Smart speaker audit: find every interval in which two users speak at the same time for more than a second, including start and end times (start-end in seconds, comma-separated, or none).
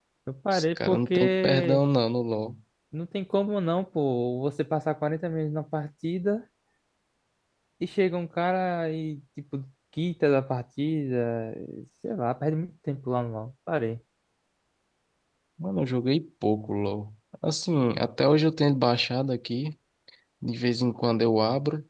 0.5-1.8